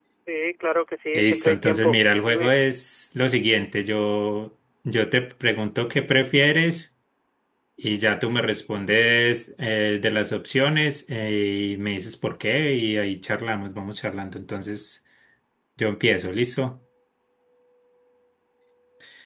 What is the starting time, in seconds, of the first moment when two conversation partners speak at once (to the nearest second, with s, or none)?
1 s